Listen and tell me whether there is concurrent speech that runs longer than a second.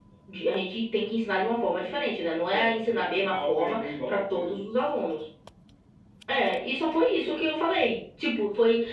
Yes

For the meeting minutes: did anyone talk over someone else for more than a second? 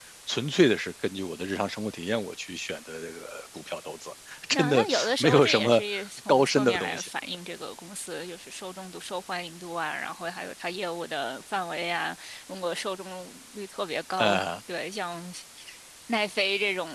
Yes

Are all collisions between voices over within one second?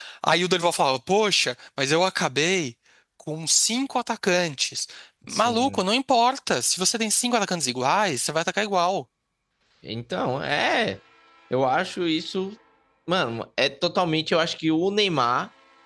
Yes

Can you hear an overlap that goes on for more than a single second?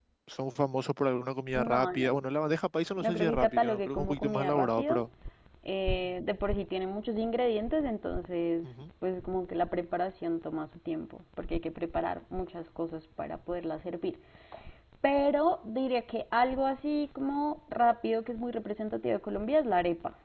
Yes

